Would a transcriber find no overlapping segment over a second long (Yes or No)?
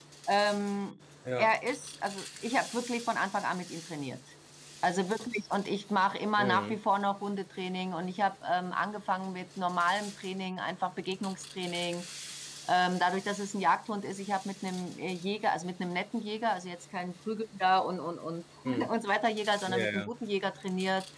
Yes